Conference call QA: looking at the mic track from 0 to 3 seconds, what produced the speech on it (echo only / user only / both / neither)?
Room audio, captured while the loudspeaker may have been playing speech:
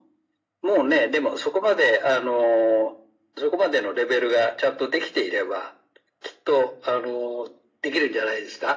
echo only